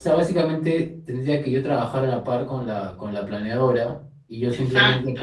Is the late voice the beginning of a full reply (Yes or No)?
No